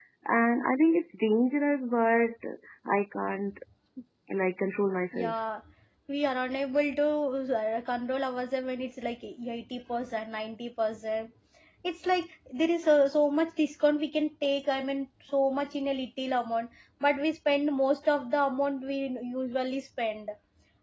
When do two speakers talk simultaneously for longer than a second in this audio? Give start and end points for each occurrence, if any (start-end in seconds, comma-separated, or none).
none